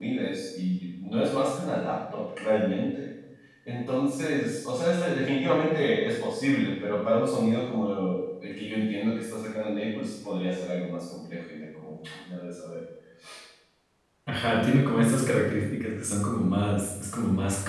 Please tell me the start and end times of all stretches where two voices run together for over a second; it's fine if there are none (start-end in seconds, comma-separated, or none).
none